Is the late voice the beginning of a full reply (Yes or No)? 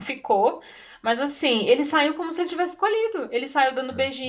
No